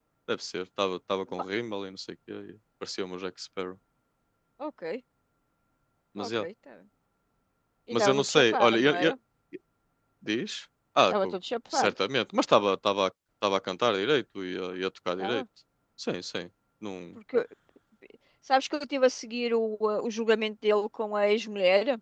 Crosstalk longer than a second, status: present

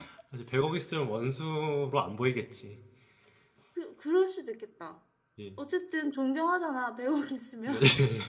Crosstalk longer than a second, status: none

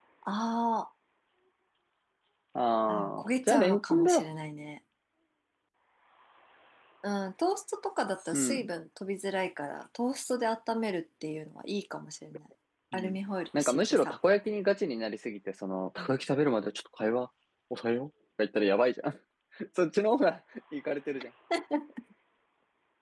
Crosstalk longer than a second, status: present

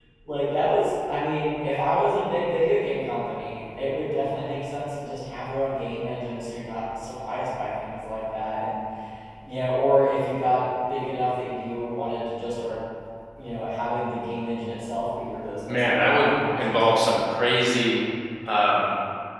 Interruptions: present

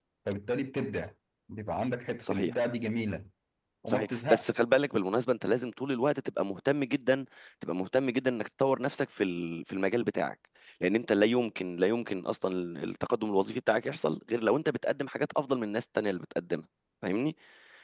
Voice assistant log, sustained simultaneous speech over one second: none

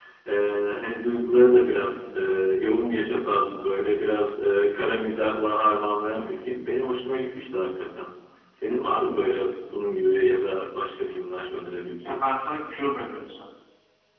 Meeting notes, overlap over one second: none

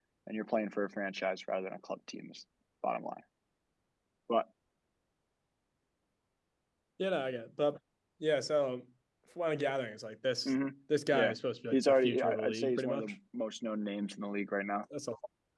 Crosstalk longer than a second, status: present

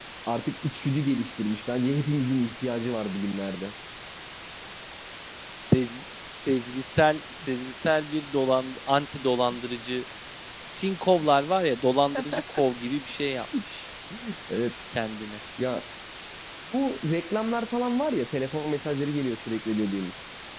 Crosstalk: none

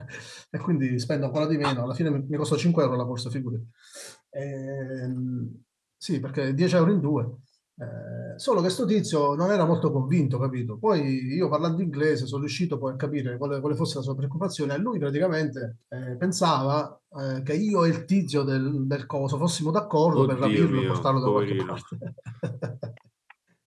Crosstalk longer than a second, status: present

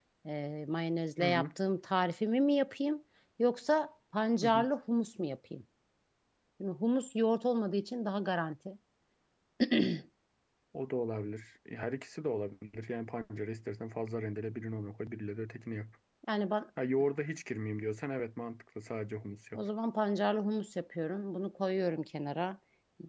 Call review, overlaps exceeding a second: none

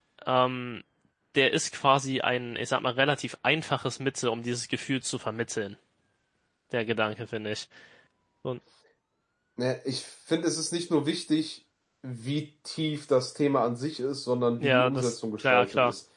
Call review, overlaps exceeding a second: present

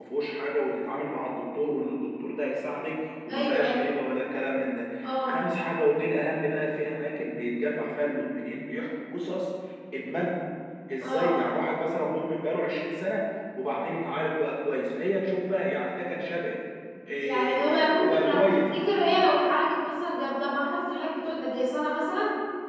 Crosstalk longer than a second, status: present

